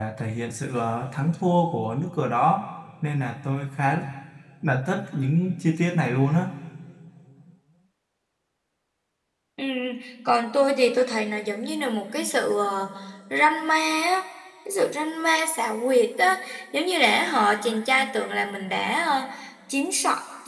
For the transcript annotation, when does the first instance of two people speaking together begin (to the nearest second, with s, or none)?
none